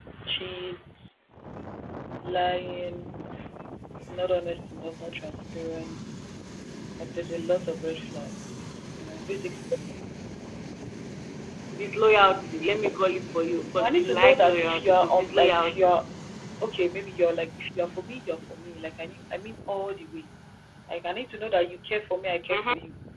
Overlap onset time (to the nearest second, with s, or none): 14 s